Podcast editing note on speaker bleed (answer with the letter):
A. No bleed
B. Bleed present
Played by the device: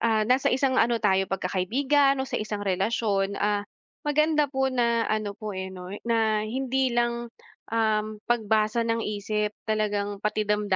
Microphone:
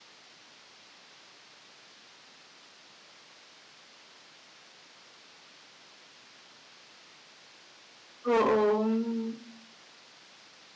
A